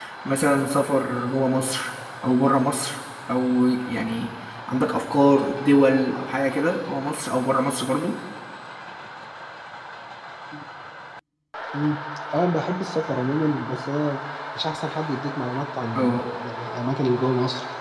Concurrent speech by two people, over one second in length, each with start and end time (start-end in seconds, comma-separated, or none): none